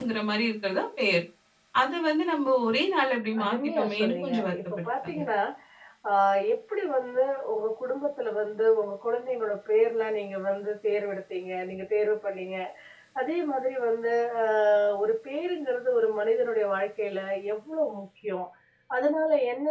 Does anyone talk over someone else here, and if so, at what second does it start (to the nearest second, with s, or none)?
3 s